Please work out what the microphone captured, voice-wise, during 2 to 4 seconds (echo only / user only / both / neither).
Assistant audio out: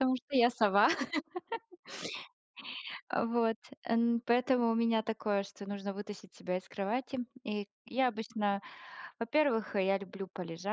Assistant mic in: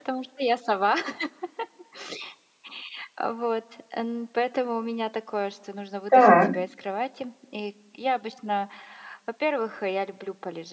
echo only